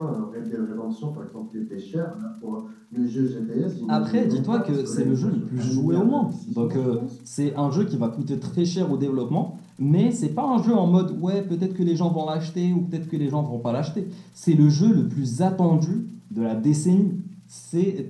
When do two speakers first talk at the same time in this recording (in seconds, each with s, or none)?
3.9 s